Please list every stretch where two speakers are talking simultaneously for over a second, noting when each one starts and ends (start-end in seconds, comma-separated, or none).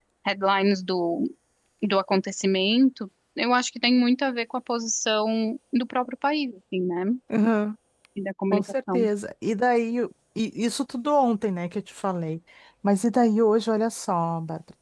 none